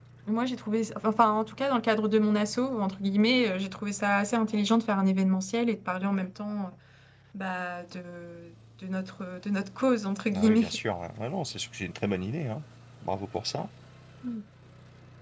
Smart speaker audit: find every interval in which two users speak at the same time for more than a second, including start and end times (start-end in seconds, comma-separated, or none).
none